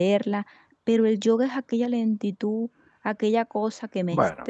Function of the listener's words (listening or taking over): taking over